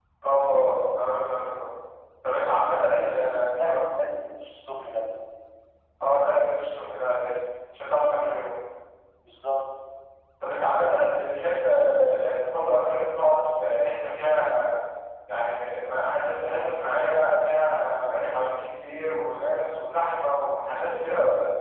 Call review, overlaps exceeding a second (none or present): present